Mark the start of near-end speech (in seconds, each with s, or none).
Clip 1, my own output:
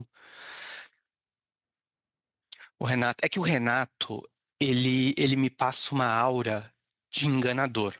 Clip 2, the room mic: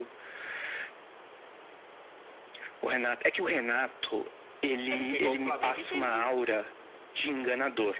4.9 s